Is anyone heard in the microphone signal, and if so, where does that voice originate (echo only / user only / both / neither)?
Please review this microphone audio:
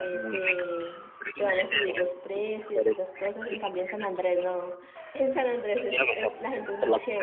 both